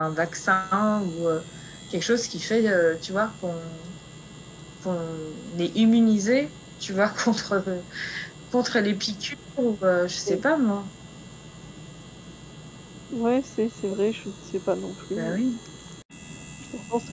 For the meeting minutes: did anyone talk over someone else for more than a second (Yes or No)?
No